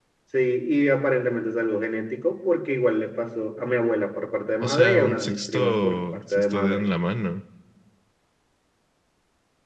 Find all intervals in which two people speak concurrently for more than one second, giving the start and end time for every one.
4.6-6.8

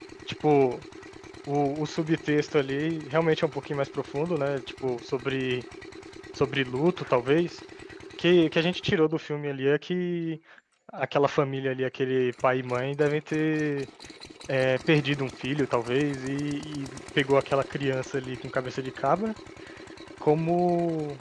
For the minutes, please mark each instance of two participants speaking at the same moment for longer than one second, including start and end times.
none

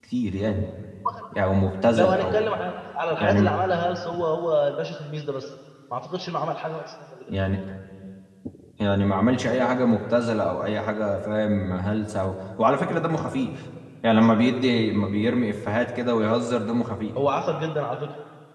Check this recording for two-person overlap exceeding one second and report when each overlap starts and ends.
none

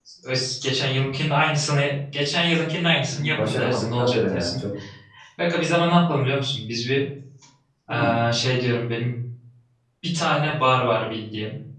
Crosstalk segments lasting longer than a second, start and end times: 3.1-4.6

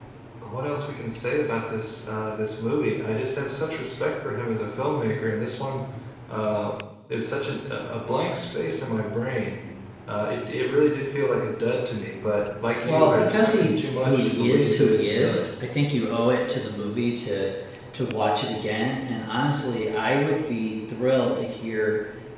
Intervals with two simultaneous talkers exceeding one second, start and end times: 12.8-15.4

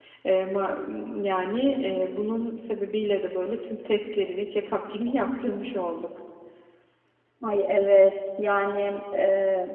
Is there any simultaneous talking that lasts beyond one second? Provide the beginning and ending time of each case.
none

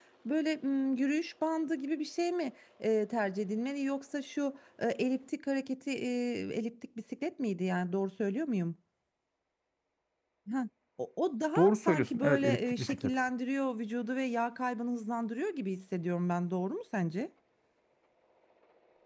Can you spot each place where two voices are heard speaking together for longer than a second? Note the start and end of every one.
11.6-13.1

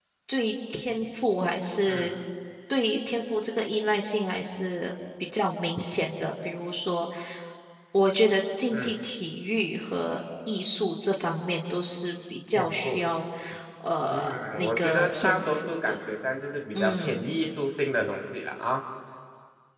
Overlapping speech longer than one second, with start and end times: 14.1-16.0

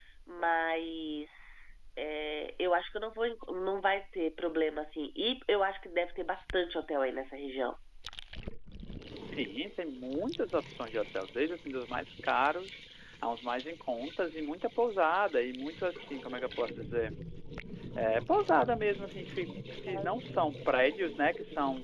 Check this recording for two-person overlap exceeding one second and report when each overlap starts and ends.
none

